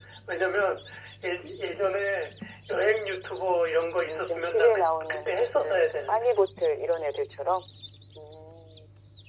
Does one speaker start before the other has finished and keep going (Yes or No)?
Yes